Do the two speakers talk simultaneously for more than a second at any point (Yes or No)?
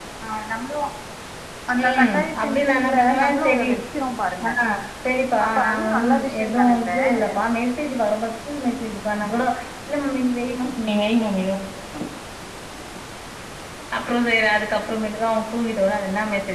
Yes